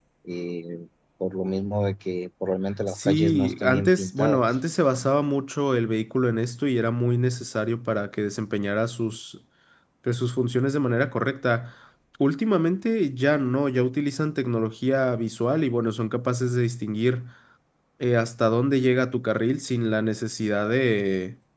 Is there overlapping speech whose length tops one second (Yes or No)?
Yes